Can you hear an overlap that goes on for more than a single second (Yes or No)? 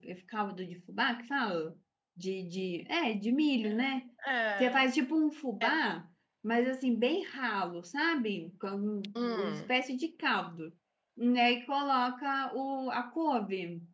No